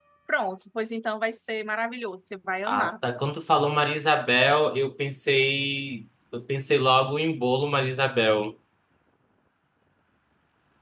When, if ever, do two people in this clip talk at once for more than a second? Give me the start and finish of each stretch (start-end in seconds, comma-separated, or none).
none